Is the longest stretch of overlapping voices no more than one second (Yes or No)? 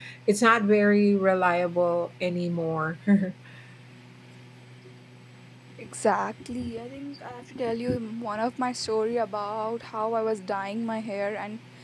Yes